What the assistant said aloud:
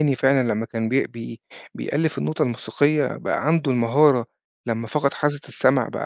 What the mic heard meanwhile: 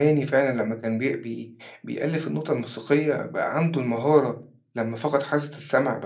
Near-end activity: none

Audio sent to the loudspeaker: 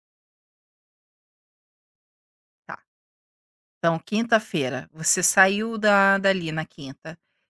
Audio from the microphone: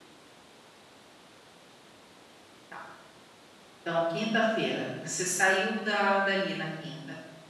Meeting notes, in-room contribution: none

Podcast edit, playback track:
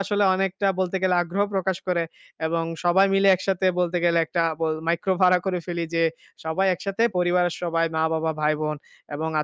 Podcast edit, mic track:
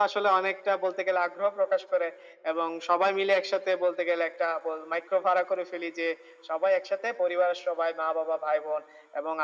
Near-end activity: none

